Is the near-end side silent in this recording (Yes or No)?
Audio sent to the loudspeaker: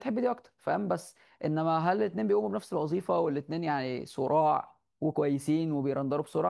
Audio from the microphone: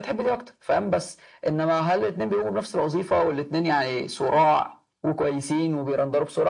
Yes